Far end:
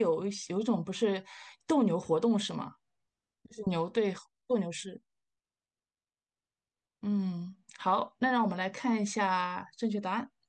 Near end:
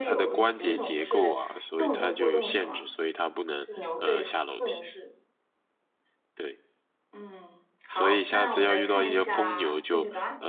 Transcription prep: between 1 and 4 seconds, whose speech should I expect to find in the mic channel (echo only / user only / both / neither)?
both